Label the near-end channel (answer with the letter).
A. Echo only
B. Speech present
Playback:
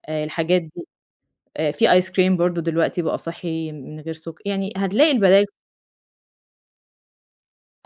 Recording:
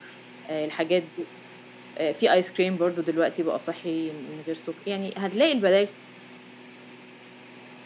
A